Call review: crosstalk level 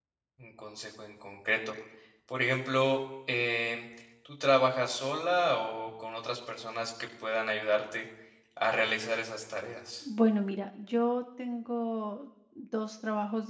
none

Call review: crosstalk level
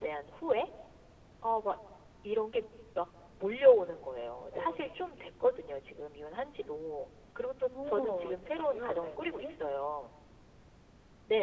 present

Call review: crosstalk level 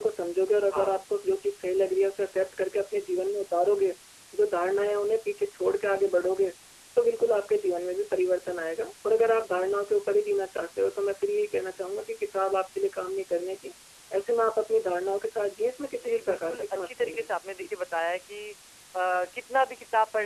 present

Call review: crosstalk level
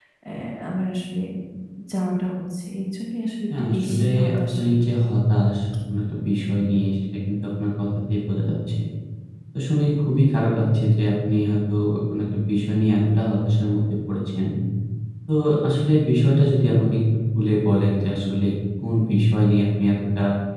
present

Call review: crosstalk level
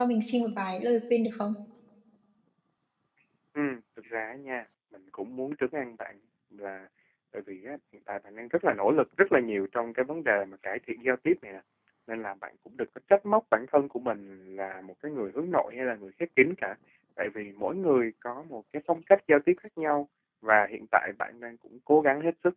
none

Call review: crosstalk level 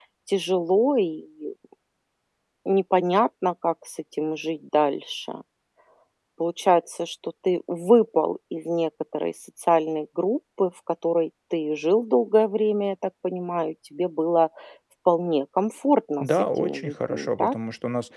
present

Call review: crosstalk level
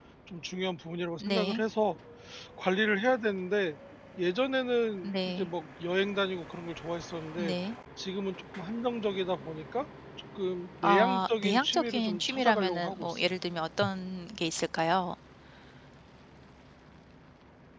present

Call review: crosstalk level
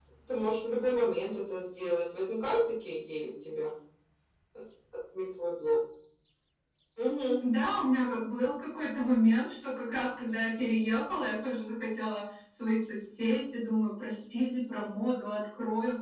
none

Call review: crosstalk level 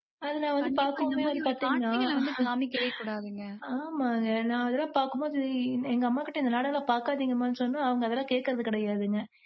present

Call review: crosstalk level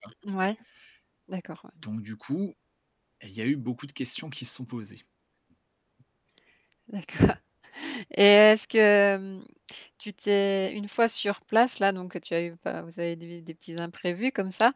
none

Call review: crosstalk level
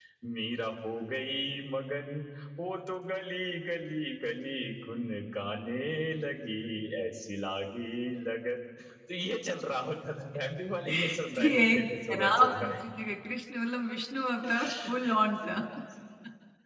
present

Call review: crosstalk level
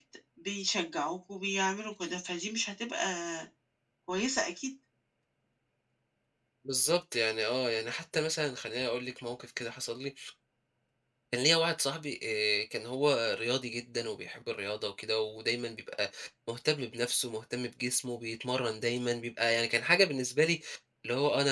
none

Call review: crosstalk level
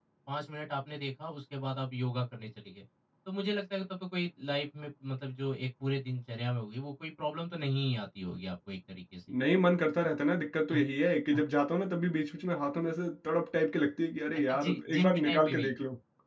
present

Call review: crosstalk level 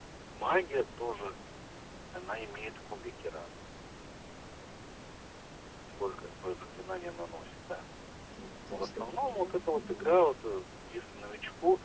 present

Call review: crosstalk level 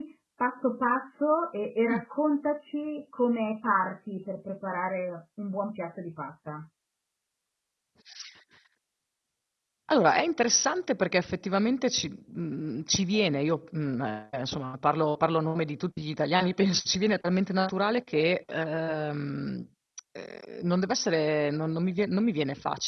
none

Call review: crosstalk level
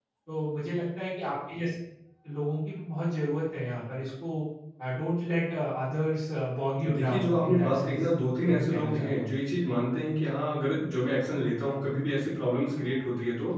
present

